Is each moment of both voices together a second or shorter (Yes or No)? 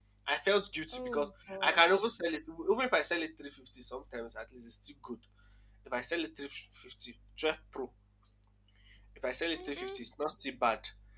Yes